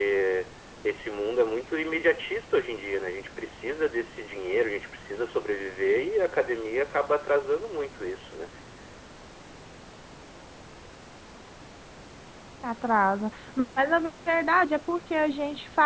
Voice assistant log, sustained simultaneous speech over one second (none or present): none